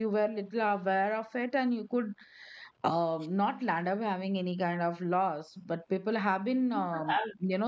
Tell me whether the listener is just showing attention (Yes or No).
Yes